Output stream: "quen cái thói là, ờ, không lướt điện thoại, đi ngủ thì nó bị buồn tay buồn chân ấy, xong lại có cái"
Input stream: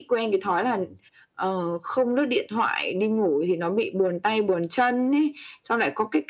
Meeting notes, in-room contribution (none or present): none